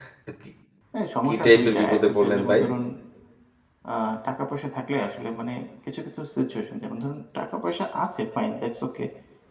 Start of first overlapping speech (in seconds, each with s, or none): 1.2 s